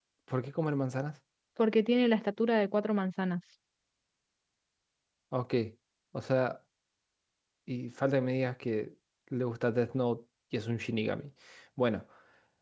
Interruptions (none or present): none